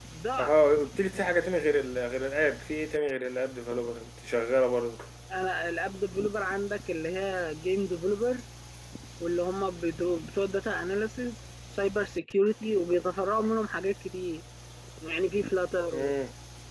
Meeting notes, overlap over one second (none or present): none